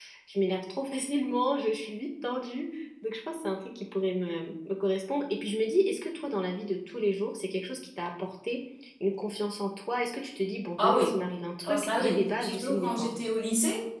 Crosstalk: present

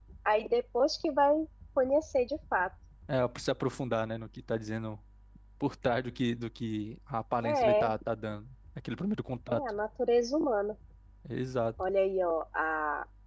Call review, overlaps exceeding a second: none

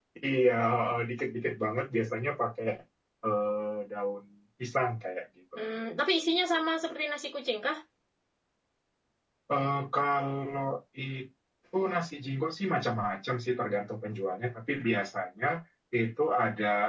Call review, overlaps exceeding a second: none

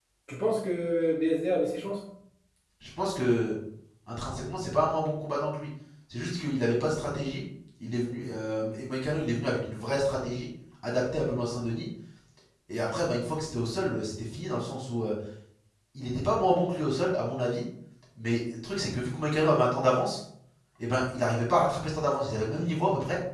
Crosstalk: none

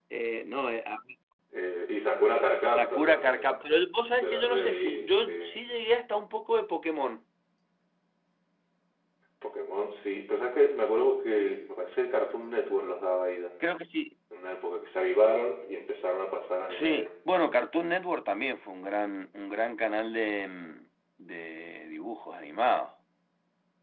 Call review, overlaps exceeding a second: present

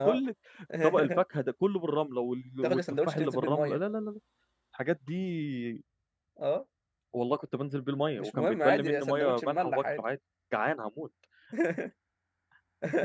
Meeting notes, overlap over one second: present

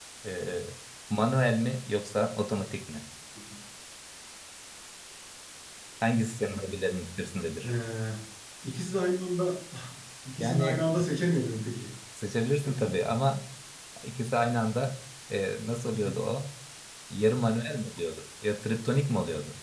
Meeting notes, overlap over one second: none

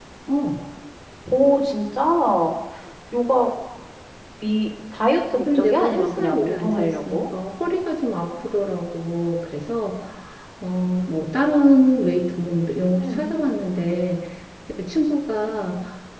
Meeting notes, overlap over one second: present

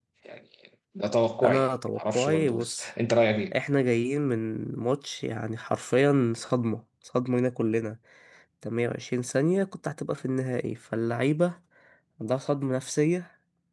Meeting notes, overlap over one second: present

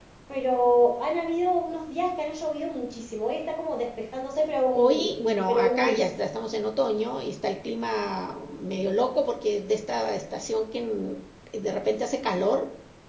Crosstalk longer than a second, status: present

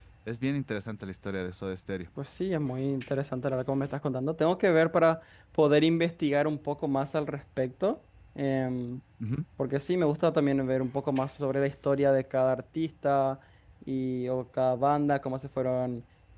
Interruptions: none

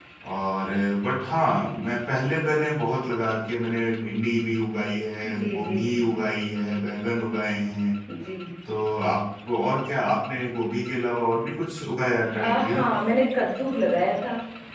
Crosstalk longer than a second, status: none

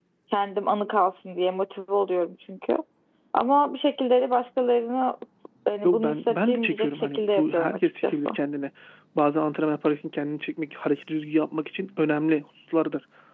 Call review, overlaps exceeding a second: present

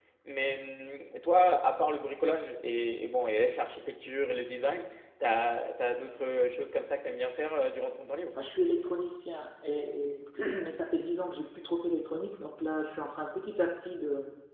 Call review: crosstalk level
none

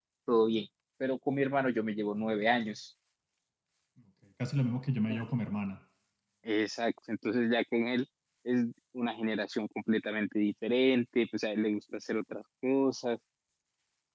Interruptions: none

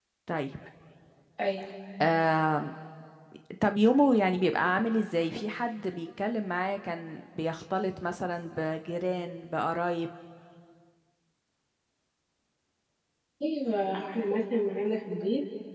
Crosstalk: none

